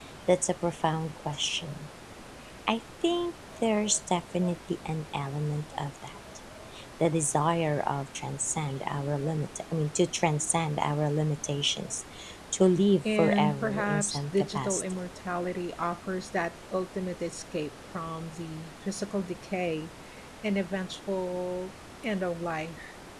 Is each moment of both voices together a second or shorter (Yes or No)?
No